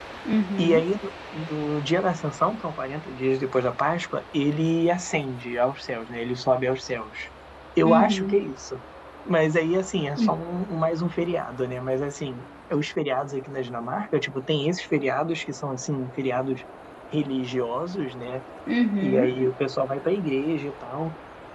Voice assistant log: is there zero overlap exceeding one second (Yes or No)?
Yes